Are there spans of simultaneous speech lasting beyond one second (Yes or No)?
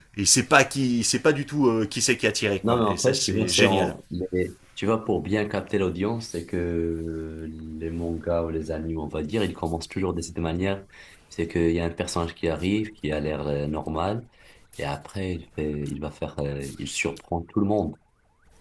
Yes